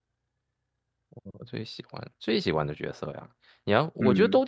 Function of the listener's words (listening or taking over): listening